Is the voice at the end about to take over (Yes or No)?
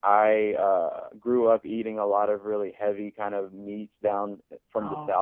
No